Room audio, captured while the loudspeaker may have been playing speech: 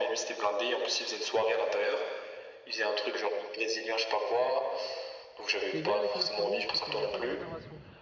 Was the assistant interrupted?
Yes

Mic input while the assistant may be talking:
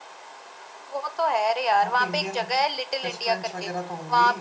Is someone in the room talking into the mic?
Yes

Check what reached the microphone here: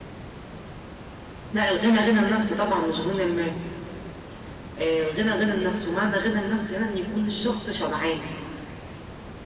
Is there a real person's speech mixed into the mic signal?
No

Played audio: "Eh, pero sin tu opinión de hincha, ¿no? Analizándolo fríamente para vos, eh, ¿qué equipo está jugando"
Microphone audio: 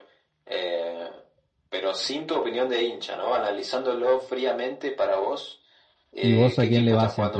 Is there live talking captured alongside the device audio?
Yes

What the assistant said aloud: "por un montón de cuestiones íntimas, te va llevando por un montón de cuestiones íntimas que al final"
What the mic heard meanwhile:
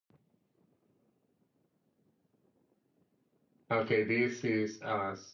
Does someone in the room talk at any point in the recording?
Yes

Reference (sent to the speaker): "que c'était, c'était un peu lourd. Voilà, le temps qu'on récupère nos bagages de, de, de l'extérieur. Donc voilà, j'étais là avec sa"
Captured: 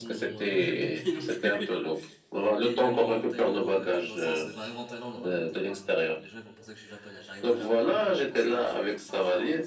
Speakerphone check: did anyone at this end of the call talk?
Yes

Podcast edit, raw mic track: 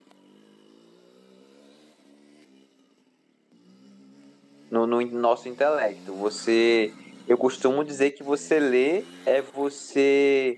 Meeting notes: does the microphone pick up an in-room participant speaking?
Yes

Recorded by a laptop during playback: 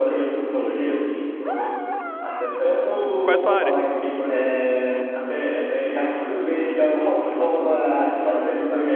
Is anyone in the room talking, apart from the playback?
Yes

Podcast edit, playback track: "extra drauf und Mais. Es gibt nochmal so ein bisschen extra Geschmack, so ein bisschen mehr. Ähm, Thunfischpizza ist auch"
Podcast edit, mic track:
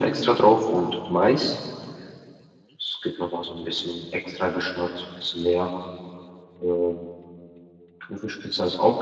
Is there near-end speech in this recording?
No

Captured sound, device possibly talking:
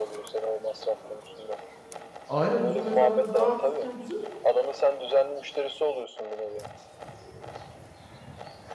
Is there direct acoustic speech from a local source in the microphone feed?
Yes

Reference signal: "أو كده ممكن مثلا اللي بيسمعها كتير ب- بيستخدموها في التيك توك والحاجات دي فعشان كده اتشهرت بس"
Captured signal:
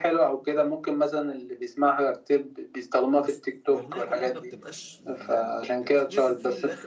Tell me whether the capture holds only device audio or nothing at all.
No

